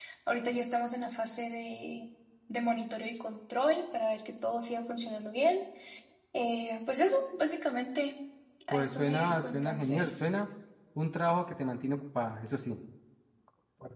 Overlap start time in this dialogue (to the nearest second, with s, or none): 9 s